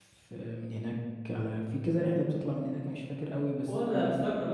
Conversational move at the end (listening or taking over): taking over